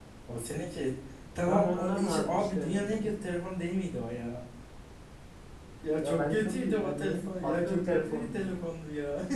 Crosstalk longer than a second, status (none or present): present